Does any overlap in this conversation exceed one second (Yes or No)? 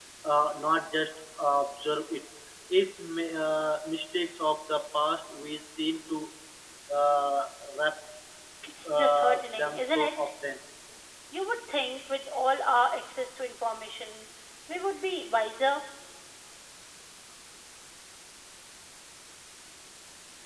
Yes